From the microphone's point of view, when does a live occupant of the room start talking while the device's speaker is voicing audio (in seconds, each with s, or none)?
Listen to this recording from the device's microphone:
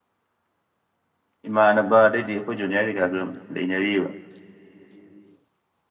1.5 s